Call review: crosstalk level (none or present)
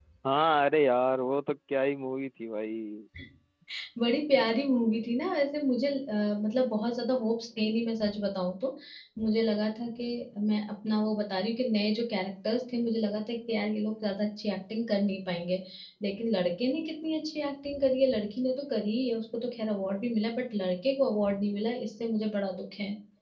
none